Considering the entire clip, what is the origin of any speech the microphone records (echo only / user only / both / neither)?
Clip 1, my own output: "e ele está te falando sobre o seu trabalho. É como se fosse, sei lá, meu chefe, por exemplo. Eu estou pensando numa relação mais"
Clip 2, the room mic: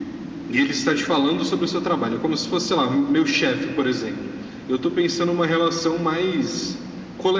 echo only